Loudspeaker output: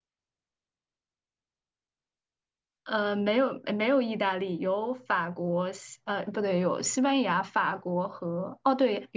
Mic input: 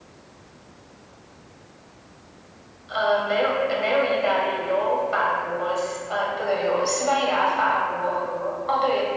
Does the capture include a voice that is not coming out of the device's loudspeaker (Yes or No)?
No